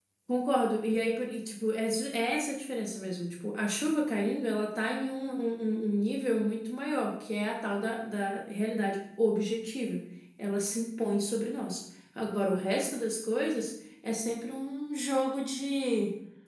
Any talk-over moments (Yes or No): No